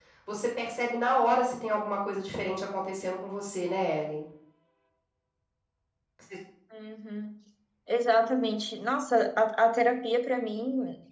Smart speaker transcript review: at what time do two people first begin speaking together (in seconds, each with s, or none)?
none